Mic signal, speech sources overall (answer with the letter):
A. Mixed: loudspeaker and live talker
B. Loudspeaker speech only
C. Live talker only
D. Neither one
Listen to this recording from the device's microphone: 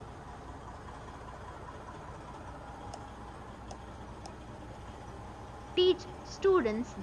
C